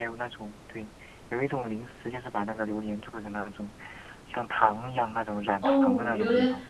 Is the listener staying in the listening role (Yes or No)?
No